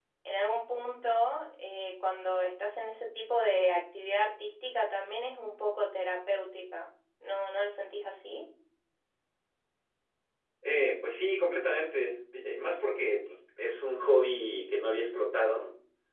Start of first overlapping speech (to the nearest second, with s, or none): none